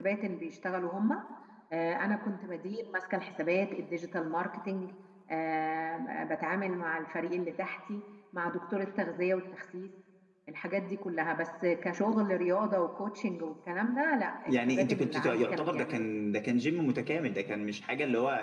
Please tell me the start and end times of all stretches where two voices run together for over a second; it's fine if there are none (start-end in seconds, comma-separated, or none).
14.5-16.1